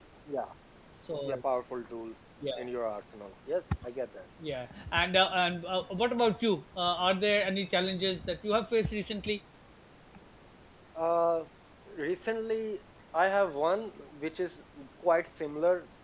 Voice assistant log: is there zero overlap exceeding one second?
Yes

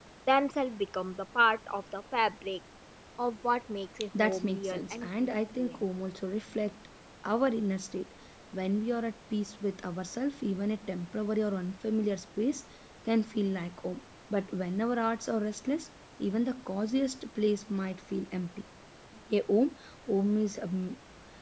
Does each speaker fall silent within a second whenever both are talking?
No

